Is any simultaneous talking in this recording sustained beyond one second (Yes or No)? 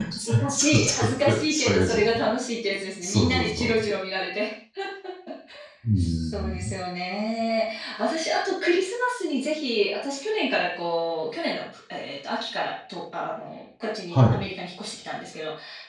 Yes